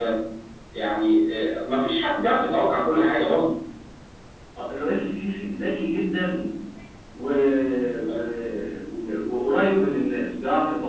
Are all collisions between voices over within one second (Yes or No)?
Yes